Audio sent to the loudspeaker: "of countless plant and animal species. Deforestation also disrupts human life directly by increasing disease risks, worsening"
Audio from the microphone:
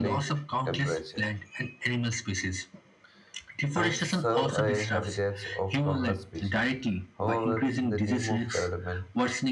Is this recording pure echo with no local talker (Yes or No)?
No